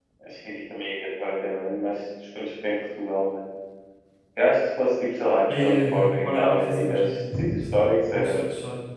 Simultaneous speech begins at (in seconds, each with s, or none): 5.5 s